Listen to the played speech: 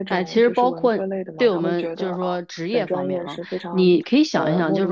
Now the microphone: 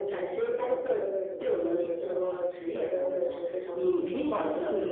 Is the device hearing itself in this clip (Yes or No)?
Yes